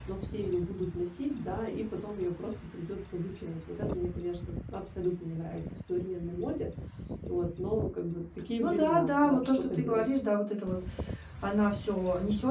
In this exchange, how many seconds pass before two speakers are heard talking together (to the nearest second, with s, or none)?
9 s